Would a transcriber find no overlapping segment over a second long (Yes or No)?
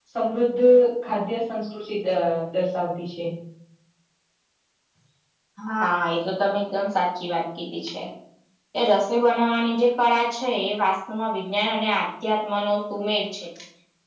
Yes